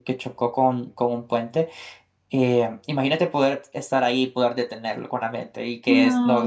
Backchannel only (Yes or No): No